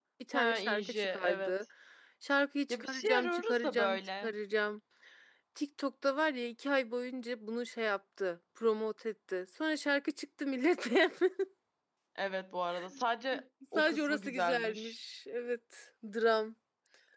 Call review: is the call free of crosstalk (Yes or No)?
No